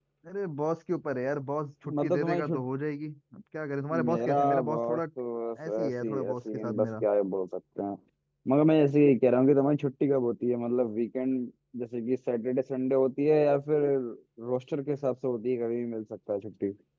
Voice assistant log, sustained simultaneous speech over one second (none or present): present